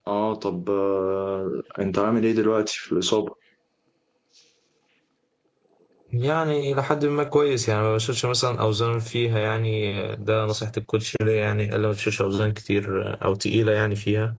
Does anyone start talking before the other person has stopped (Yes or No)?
No